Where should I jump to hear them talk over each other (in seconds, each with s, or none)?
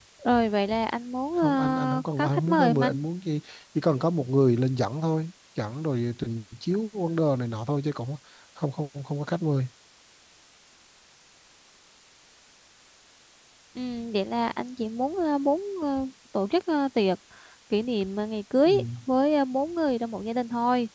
1.4 s